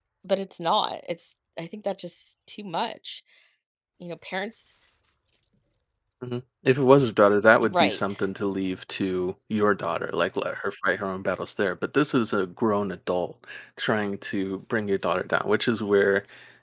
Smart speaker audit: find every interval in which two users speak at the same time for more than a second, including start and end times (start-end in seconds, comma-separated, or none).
none